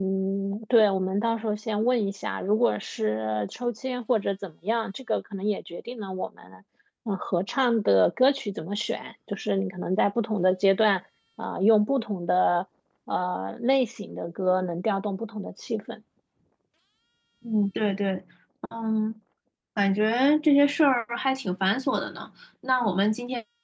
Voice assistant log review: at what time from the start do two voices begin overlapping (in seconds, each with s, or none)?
none